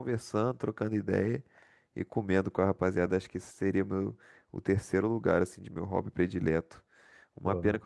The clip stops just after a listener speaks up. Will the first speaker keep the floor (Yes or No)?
Yes